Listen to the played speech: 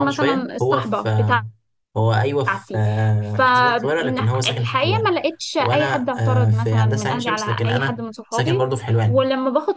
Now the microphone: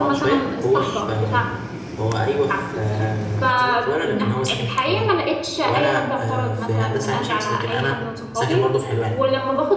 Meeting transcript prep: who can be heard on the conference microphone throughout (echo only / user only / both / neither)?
both